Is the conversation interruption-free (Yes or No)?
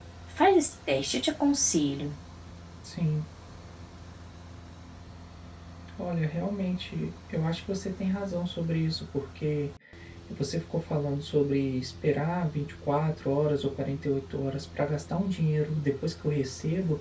Yes